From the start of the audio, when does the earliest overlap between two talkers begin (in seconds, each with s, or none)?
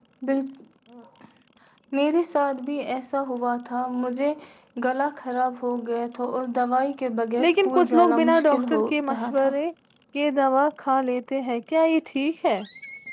7.4 s